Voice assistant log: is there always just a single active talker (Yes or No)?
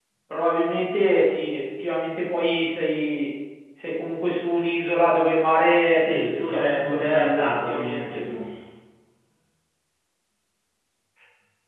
No